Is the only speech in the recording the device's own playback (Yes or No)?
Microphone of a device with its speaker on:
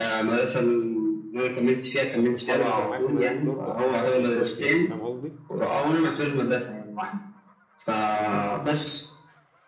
No